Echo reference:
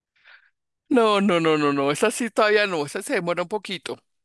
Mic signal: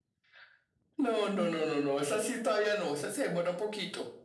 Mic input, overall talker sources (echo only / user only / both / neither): echo only